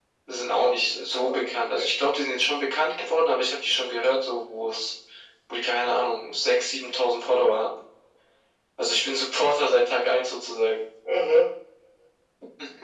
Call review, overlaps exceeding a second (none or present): present